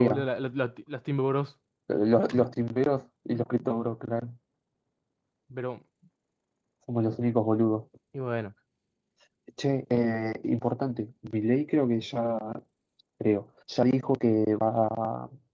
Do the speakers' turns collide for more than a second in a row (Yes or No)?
No